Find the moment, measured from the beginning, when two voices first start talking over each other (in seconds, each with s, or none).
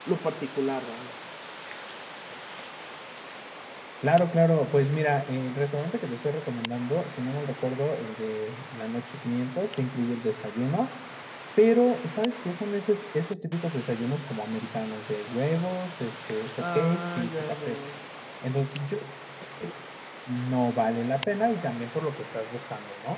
16.6 s